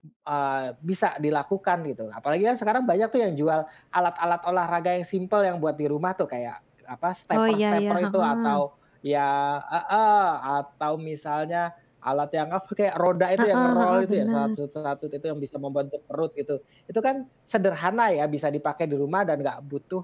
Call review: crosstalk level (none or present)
present